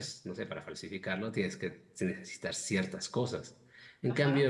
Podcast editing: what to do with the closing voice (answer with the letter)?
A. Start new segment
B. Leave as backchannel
B